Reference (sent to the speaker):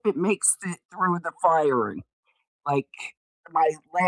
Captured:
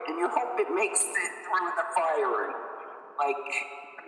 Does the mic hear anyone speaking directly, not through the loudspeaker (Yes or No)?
No